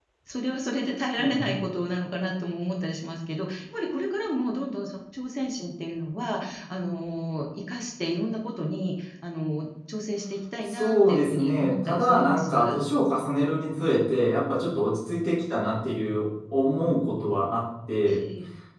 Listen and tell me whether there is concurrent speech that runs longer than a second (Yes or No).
Yes